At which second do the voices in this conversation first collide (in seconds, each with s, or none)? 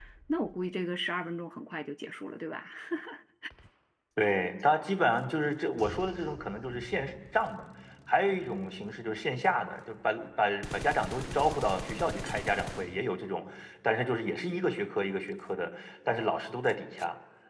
none